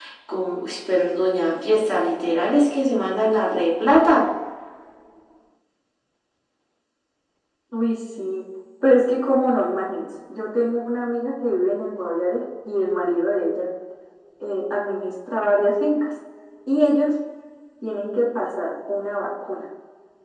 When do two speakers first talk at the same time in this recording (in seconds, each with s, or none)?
none